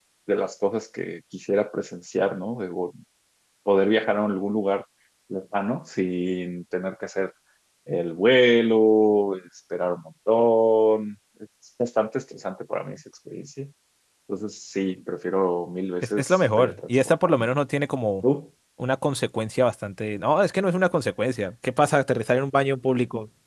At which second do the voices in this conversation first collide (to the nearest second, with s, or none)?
16 s